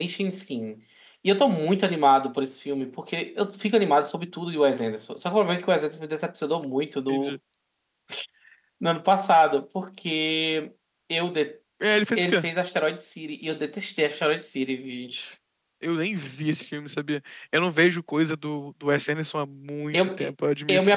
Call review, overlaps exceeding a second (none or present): none